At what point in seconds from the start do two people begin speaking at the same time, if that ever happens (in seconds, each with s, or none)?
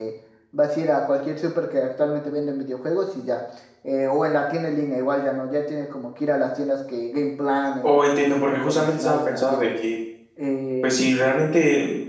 7.8 s